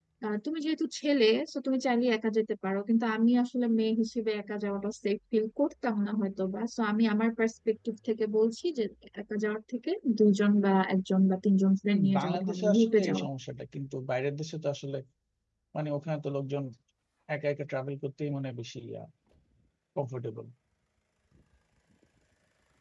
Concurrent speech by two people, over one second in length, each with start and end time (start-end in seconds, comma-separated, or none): 11.8-13.2